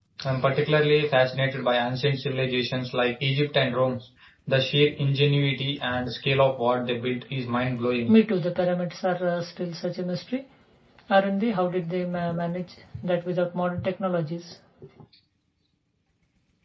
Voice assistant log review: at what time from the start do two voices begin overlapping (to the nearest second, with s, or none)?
none